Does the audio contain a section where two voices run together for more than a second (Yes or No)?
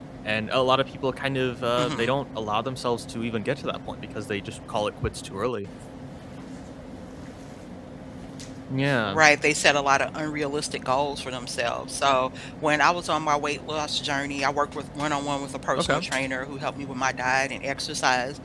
No